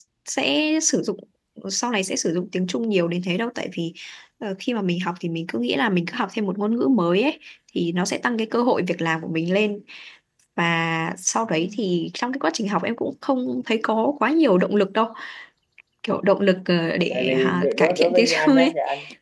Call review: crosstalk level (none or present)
present